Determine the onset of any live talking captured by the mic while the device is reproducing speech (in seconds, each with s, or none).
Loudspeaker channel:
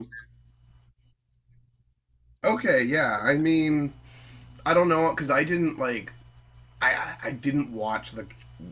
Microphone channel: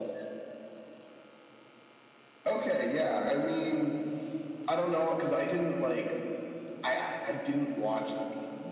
none